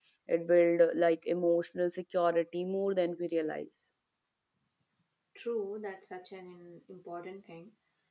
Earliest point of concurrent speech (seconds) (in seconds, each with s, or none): none